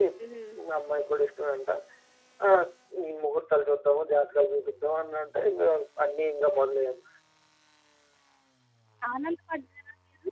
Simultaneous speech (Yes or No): No